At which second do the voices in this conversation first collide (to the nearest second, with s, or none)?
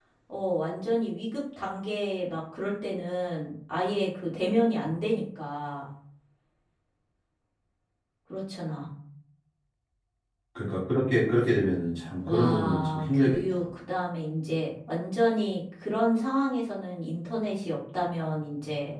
12 s